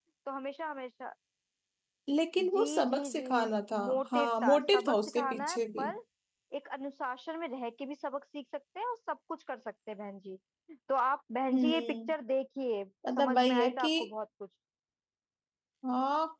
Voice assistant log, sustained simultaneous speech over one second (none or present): present